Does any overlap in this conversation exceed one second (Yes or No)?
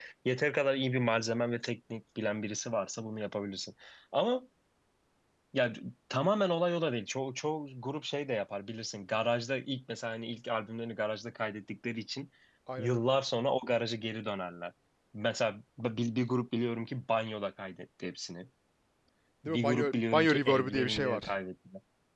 Yes